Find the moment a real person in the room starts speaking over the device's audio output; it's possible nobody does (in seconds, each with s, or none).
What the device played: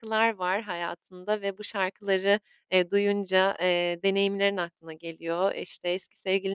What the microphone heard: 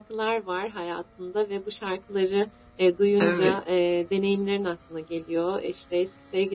3.2 s